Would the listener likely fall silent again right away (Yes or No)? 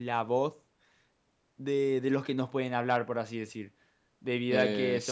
Yes